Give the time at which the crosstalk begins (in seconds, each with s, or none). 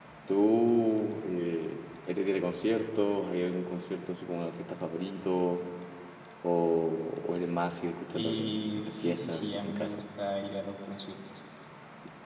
8.1 s